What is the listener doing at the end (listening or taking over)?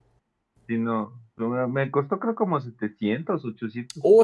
taking over